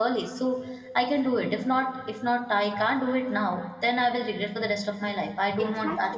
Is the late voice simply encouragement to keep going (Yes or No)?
No